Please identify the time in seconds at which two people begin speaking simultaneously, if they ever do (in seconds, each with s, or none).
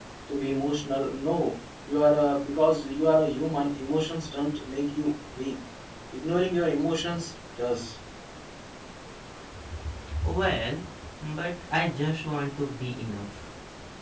none